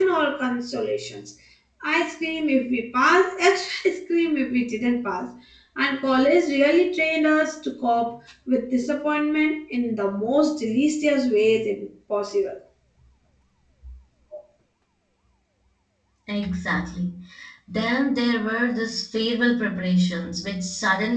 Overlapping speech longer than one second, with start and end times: none

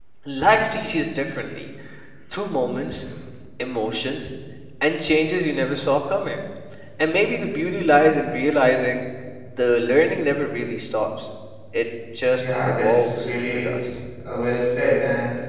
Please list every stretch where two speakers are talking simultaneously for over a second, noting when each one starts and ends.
12.2-13.7

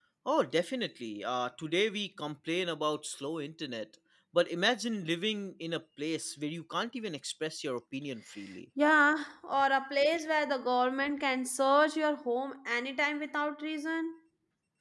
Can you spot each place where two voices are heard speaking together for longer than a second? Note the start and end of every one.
none

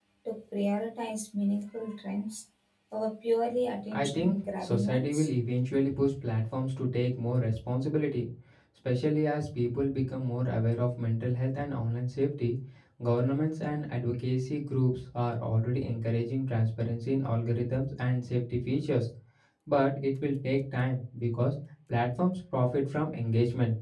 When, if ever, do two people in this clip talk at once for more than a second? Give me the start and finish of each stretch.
3.9-5.3

